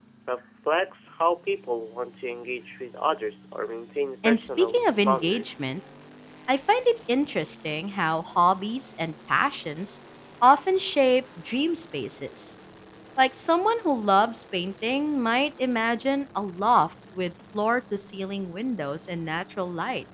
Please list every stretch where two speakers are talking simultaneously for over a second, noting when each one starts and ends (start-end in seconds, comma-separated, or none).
4.2-5.6